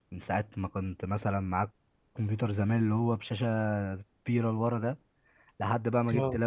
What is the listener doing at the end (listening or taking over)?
listening